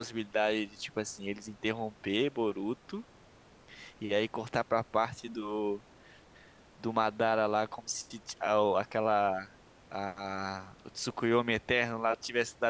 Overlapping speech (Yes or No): No